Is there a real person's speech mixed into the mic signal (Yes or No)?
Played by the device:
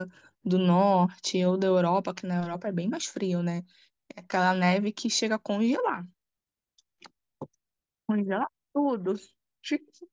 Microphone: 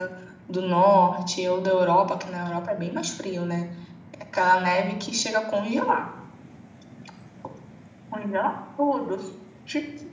No